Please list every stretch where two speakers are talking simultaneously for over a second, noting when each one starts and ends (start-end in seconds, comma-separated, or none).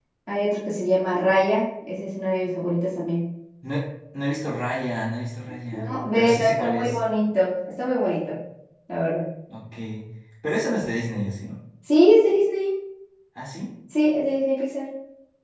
5.7-7.0